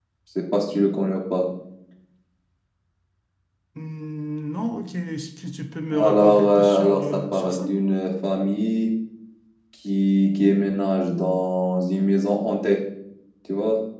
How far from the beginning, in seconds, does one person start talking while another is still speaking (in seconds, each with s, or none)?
5.9 s